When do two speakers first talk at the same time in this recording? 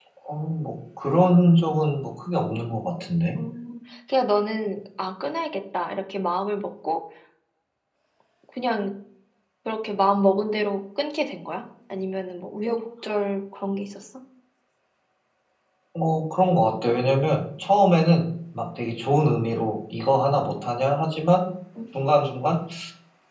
none

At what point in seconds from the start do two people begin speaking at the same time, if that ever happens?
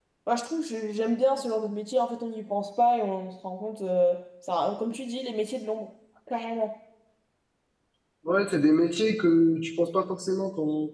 none

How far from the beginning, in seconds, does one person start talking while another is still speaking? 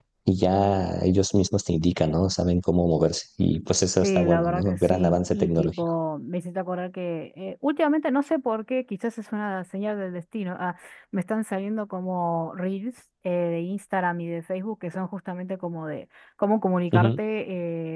4.0 s

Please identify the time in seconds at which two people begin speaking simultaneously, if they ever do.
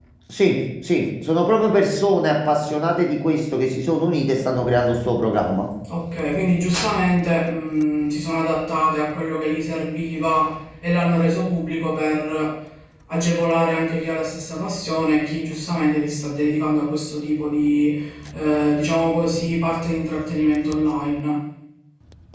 none

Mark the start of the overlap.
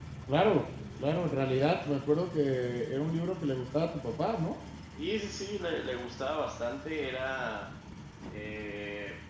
none

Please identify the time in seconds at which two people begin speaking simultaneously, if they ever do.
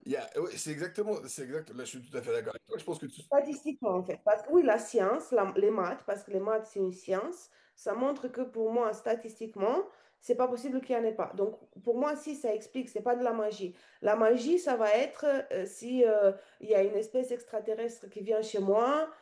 none

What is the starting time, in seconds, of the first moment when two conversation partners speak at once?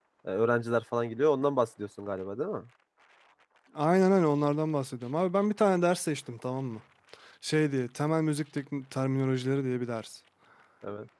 none

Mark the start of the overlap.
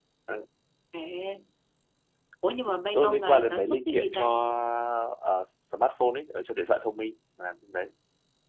2.9 s

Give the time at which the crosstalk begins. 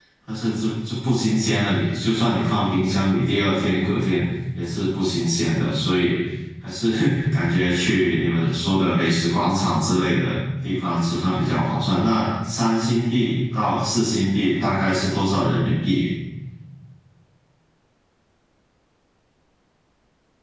none

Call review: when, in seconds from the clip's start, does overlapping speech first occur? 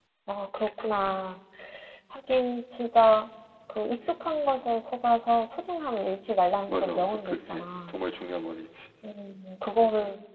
6.7 s

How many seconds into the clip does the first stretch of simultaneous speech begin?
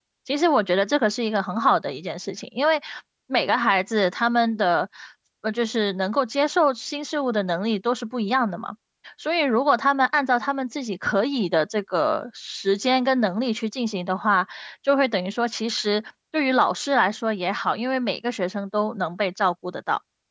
none

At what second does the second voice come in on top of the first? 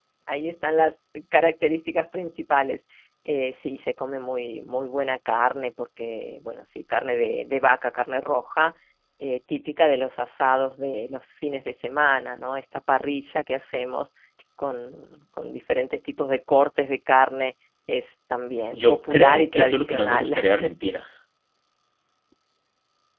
18.7 s

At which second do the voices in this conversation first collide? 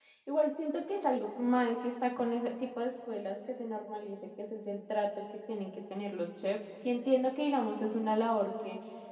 none

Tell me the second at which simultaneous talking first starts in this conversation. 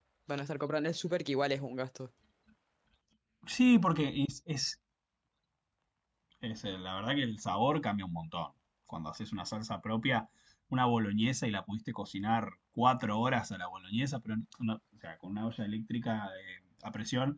none

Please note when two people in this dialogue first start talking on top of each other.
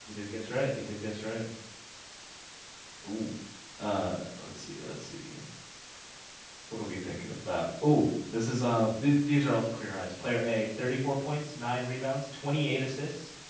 none

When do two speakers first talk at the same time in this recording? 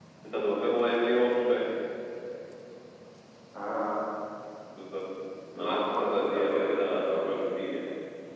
5.6 s

